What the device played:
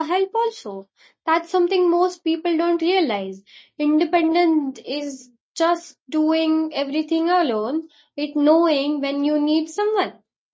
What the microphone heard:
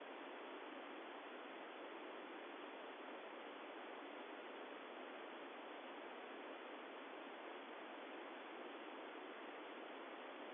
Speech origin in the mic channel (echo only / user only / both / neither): neither